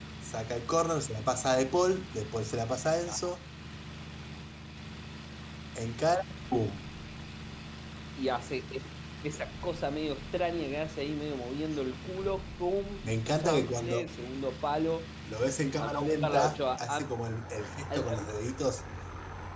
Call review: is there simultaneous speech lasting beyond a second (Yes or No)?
Yes